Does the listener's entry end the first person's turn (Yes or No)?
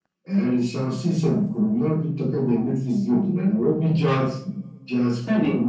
No